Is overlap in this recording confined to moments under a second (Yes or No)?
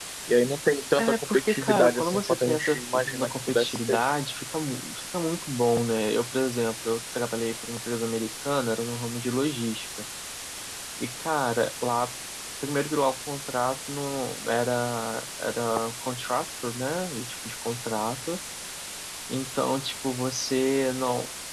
No